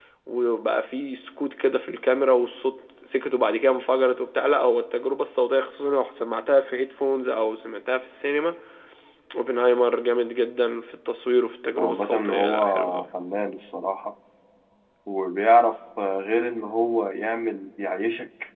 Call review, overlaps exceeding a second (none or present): present